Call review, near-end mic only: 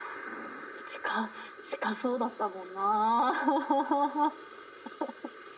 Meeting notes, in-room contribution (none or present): none